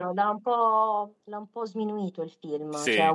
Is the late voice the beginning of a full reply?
No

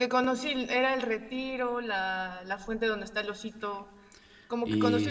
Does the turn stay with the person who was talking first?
No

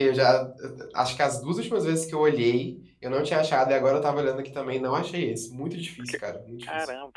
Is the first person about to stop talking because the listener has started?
Yes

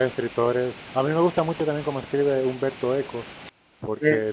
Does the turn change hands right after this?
No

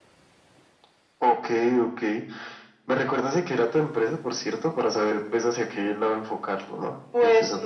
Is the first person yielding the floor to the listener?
Yes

